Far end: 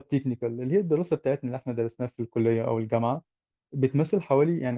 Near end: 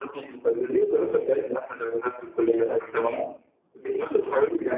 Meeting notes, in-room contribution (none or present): none